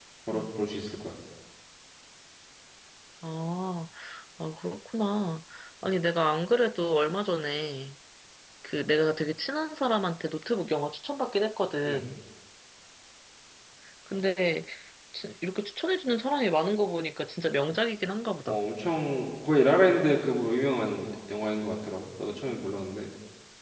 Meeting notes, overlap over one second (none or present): none